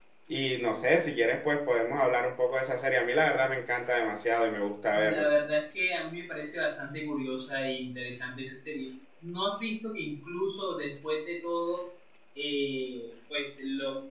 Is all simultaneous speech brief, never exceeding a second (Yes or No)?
Yes